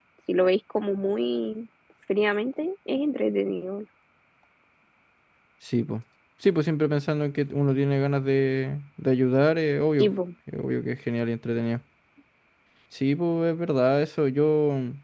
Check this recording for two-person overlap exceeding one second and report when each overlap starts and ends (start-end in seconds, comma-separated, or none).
none